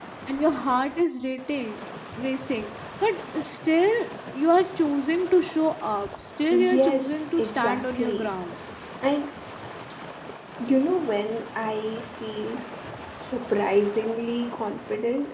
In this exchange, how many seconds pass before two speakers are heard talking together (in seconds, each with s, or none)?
6.5 s